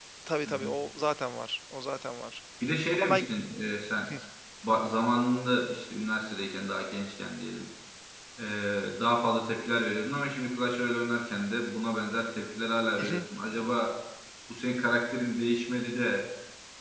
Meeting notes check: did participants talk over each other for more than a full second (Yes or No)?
No